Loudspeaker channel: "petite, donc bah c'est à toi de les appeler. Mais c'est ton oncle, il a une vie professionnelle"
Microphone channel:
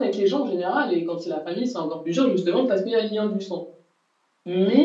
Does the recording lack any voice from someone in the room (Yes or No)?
No